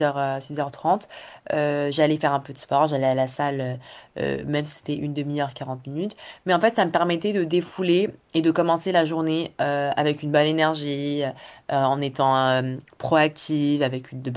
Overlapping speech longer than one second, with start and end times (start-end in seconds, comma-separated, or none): none